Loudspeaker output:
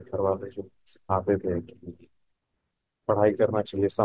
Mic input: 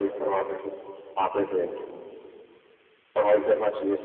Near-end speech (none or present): none